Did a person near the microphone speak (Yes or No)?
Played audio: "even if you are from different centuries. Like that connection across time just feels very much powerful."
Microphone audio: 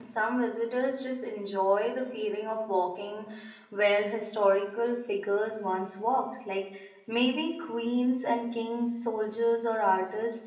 Yes